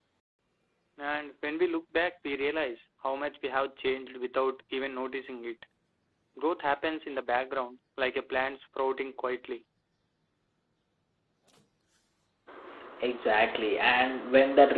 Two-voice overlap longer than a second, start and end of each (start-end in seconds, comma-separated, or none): none